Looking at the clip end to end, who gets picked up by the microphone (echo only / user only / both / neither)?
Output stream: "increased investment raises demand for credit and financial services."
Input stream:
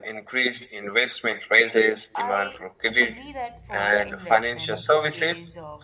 both